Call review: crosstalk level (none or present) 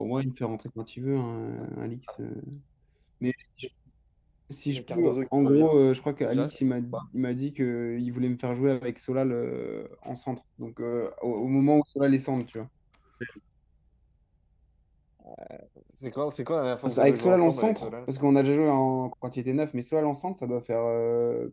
present